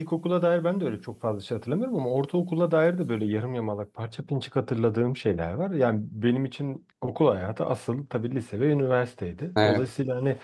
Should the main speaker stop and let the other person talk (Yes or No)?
No